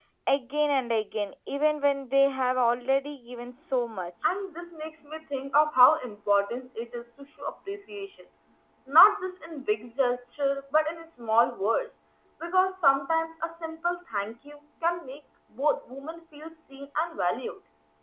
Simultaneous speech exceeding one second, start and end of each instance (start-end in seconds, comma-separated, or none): none